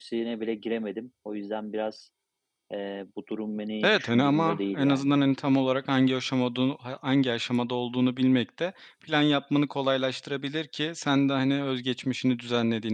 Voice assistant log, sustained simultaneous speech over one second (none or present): present